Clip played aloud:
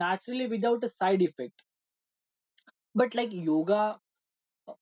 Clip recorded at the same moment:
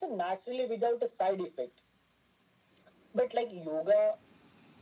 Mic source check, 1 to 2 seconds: echo only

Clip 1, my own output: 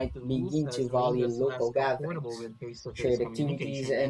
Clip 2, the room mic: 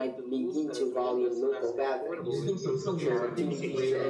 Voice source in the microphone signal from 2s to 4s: both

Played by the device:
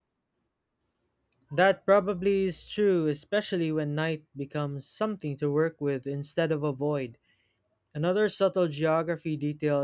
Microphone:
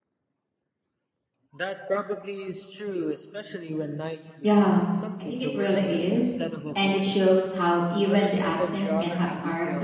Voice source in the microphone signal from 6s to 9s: both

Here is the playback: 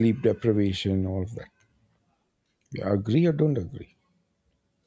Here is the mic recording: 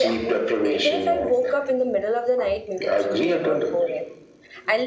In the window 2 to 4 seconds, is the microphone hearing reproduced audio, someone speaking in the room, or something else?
both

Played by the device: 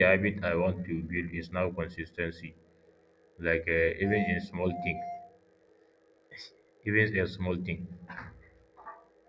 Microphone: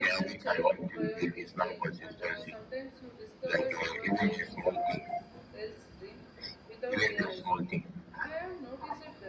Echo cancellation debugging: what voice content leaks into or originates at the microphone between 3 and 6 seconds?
both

